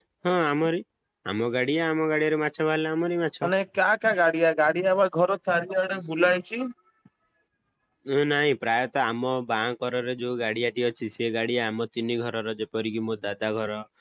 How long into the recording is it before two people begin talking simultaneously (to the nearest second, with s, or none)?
none